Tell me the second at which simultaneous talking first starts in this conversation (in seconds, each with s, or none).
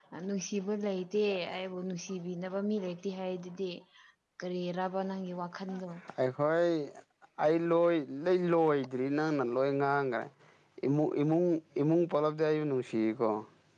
none